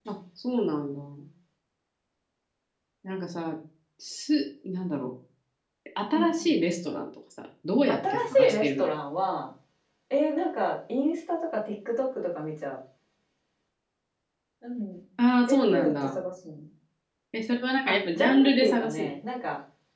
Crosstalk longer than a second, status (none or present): present